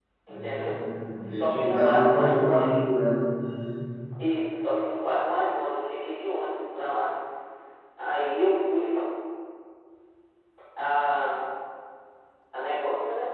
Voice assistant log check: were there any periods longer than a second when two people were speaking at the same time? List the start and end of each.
1.2-2.8

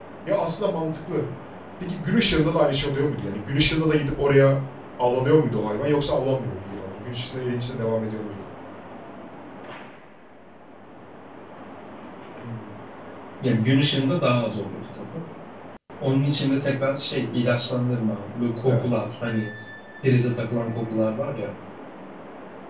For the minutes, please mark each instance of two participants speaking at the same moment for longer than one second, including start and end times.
none

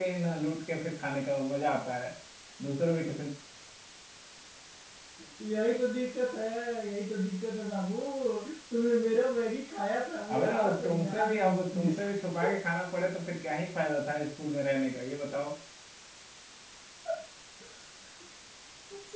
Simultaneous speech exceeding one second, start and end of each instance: 10.3-12.0

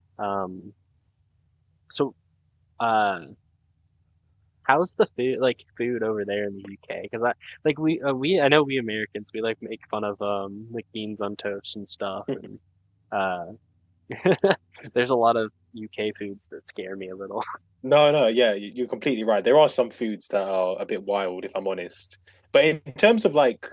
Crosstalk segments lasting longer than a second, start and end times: none

